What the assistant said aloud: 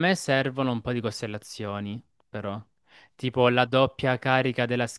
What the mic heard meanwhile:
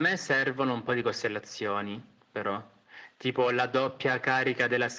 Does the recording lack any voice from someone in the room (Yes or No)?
Yes